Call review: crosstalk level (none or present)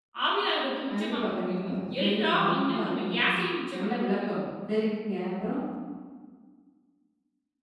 present